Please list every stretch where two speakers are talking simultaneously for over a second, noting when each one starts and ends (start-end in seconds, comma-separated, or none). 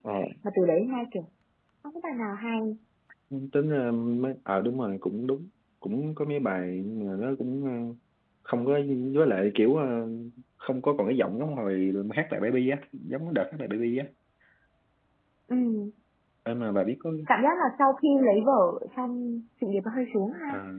none